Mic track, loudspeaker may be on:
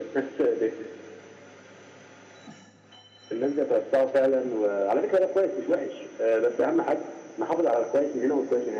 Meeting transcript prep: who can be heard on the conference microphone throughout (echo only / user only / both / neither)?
echo only